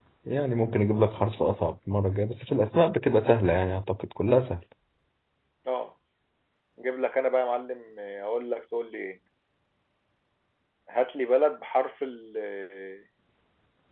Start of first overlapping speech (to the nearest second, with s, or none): none